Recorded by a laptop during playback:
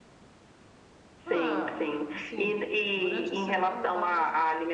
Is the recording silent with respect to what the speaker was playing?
No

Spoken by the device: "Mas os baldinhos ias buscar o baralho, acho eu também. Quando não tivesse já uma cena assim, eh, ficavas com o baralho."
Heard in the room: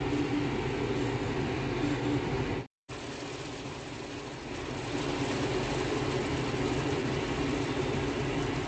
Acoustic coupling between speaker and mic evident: No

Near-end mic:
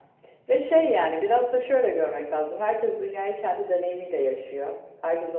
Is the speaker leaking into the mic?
Yes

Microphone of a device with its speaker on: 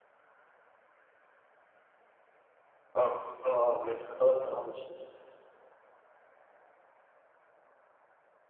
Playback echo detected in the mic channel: No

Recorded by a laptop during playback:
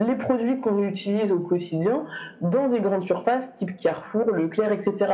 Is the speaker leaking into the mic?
Yes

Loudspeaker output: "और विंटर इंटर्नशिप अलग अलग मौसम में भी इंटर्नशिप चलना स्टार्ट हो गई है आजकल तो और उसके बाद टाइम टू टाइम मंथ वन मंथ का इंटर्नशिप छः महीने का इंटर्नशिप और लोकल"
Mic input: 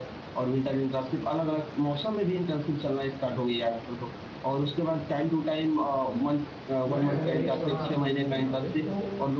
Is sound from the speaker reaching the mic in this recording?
Yes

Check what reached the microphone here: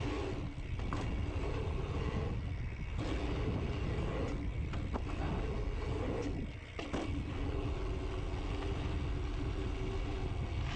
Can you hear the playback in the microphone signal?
No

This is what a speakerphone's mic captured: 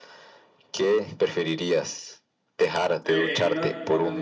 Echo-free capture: No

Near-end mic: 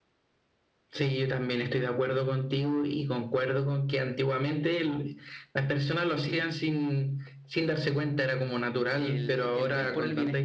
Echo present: Yes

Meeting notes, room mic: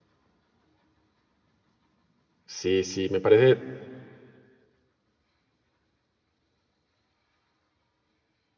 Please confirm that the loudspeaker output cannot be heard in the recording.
Yes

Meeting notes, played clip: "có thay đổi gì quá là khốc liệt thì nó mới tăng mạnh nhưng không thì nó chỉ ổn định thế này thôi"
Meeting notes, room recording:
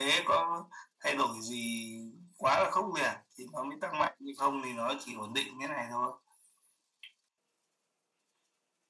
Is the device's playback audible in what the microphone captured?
Yes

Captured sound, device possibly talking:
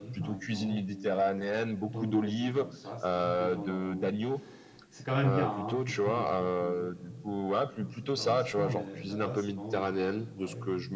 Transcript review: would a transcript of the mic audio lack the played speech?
No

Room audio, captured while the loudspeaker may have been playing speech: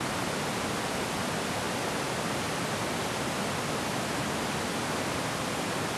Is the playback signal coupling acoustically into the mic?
No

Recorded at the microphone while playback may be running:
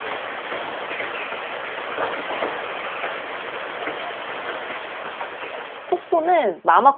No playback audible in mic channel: Yes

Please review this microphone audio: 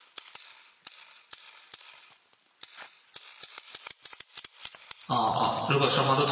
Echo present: No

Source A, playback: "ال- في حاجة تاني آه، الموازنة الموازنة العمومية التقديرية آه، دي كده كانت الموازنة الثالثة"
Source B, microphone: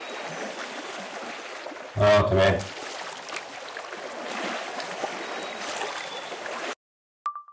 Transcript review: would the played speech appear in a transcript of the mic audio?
No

